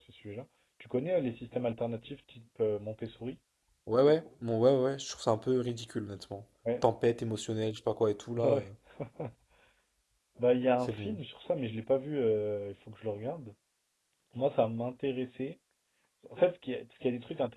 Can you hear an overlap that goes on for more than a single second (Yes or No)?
No